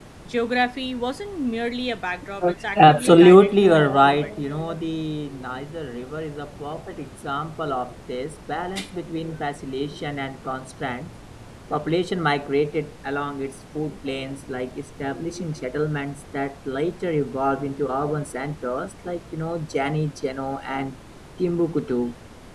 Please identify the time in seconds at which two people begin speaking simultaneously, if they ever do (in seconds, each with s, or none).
2.8 s